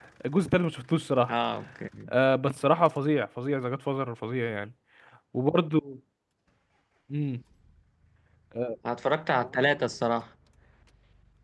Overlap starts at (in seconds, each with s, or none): none